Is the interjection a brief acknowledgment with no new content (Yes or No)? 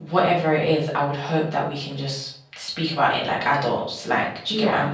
Yes